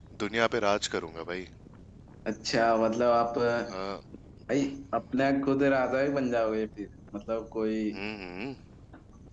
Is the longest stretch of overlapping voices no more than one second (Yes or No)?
Yes